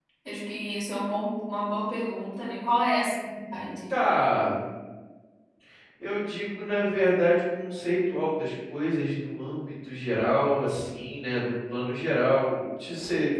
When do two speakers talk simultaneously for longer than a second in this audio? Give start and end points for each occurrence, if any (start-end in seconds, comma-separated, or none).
none